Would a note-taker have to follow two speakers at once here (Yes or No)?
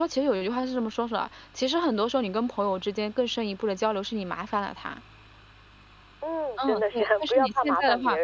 Yes